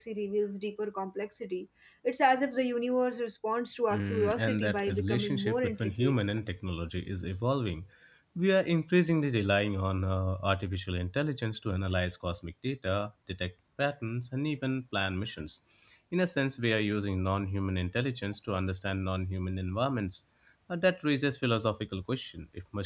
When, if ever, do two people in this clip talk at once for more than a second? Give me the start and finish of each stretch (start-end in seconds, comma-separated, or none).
3.9-6.1